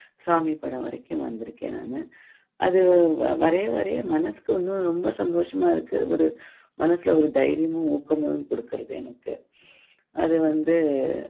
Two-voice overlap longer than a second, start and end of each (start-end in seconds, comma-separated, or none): none